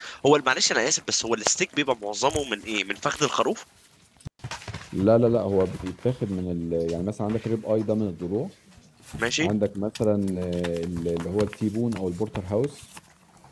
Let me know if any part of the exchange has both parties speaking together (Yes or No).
No